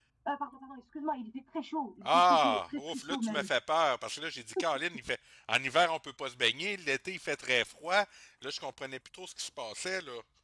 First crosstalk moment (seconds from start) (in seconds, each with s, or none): 2.0 s